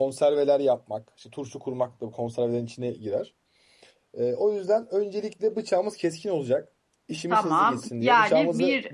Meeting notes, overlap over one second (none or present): present